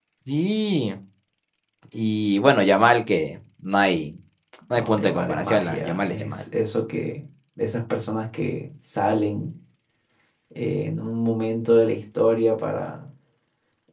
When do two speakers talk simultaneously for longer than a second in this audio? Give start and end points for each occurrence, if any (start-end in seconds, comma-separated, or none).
4.8-6.4